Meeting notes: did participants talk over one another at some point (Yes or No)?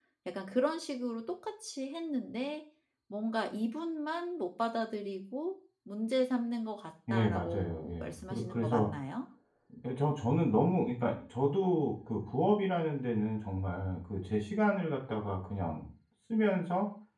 Yes